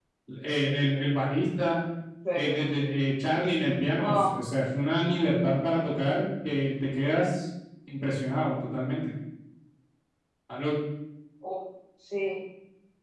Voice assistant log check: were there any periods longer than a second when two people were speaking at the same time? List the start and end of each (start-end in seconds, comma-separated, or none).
none